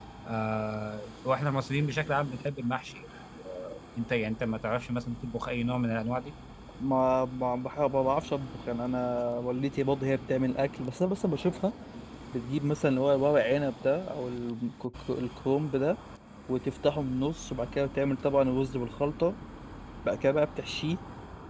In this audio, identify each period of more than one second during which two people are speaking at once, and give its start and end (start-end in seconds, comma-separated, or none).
none